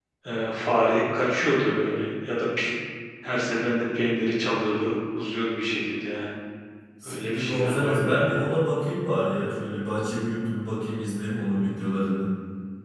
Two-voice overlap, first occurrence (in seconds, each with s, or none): 7.1 s